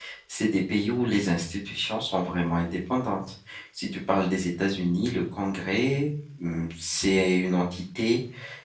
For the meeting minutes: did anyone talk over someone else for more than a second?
No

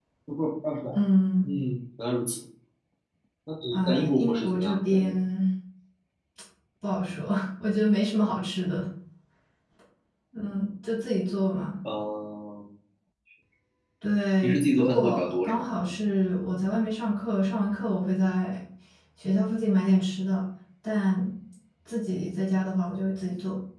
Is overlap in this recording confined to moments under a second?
No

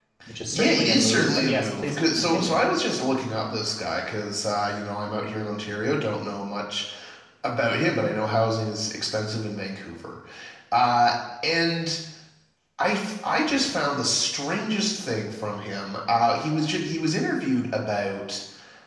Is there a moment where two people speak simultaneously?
Yes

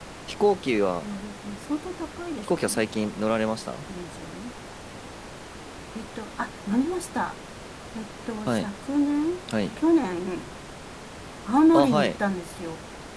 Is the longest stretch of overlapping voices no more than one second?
Yes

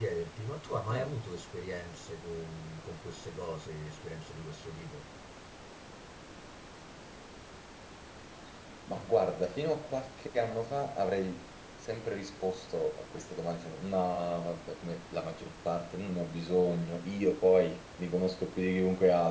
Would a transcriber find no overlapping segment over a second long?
Yes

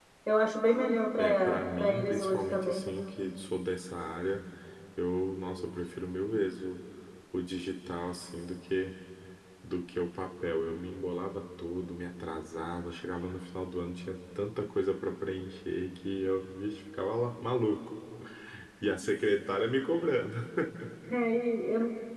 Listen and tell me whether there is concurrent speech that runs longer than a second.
Yes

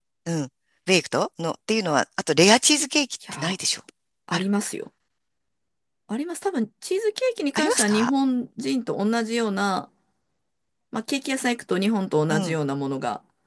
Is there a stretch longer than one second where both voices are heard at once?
No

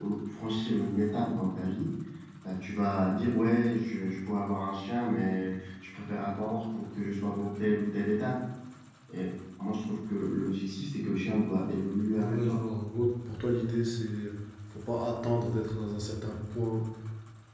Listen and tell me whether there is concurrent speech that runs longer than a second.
No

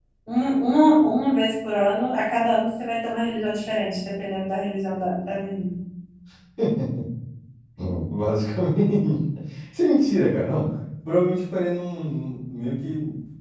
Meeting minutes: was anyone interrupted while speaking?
No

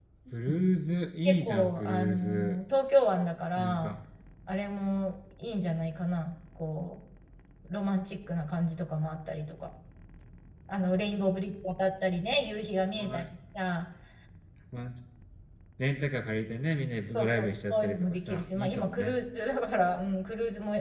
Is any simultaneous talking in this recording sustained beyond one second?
Yes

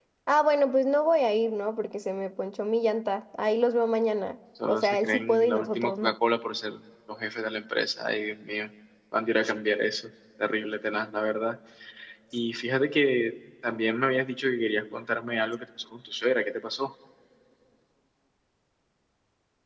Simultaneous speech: Yes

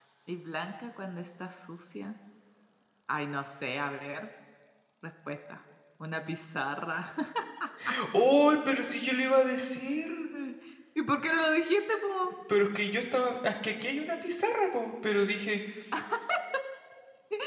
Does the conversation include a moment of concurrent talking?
No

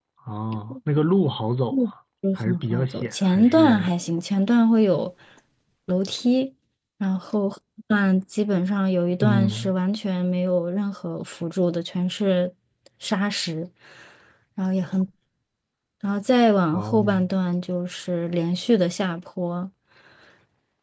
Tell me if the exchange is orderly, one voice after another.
No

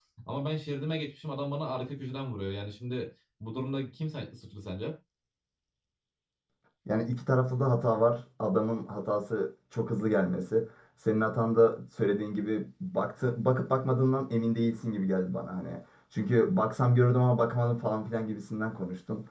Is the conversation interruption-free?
Yes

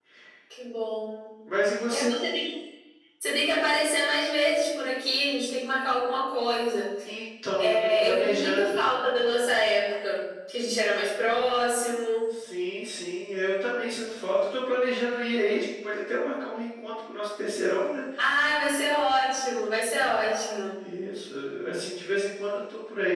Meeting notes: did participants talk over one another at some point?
Yes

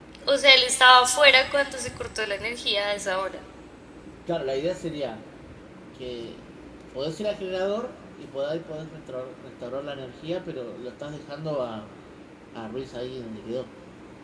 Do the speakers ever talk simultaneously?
No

